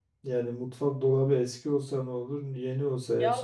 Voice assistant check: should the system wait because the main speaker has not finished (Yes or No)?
No